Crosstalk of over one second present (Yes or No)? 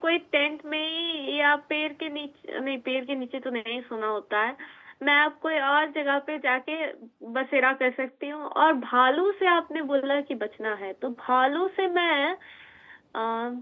No